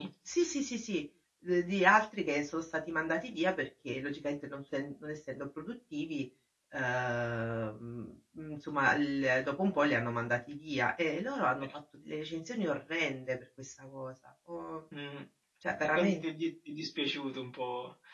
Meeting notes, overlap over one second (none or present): none